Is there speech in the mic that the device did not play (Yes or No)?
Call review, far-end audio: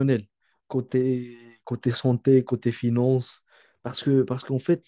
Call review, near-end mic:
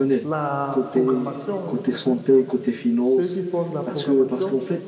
Yes